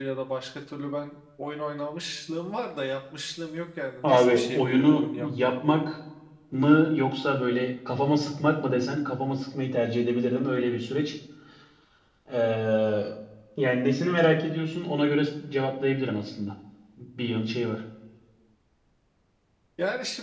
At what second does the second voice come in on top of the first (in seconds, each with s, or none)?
4.0 s